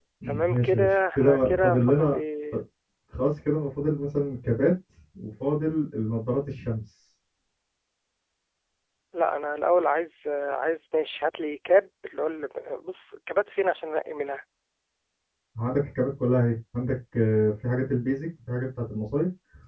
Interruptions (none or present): present